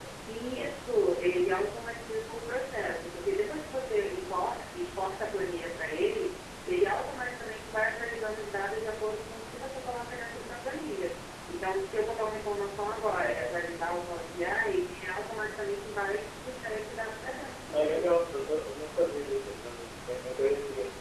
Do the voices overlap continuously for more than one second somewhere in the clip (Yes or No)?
No